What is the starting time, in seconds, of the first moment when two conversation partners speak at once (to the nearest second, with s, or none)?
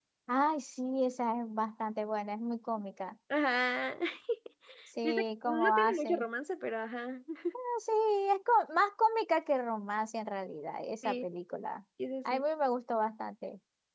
5 s